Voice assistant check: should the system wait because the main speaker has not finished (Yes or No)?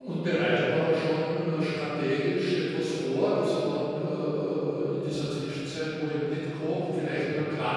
Yes